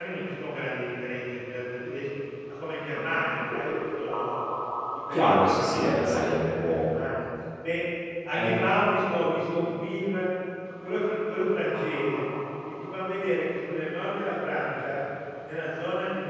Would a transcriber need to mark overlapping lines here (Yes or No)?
Yes